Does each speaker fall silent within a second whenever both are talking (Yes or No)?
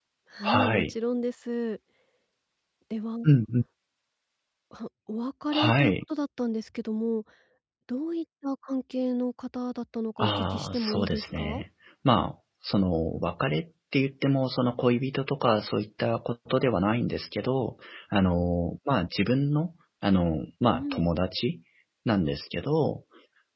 No